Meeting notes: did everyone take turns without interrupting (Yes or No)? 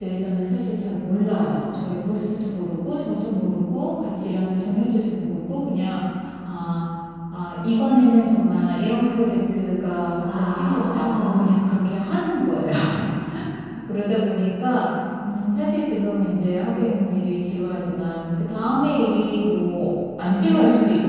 No